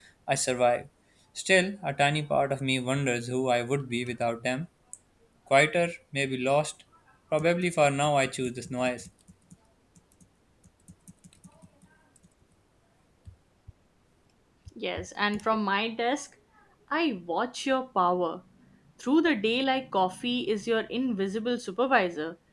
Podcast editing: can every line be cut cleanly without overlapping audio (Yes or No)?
Yes